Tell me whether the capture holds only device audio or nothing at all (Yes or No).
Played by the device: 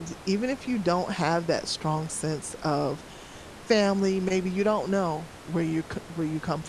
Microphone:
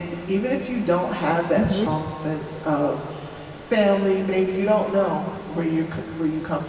No